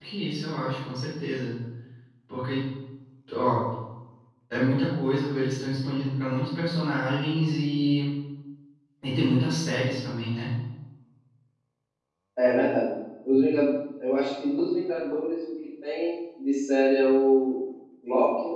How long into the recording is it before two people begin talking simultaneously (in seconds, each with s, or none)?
none